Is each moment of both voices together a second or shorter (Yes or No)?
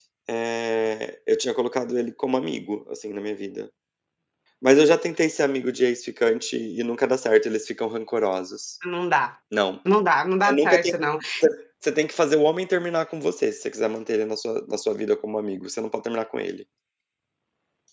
Yes